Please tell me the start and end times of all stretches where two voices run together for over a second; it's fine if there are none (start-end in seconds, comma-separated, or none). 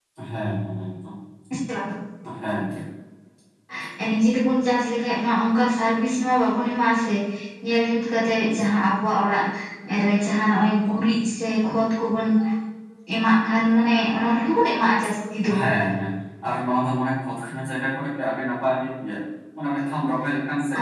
none